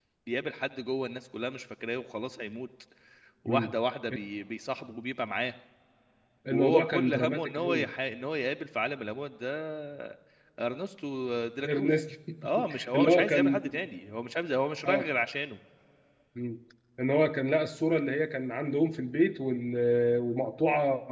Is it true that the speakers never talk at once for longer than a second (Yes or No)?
No